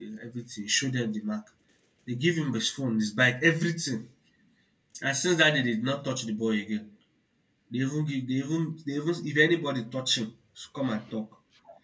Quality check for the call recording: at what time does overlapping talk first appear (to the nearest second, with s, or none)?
none